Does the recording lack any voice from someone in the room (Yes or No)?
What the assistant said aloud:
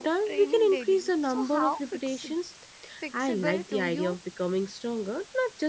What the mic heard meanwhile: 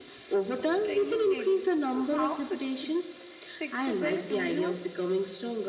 Yes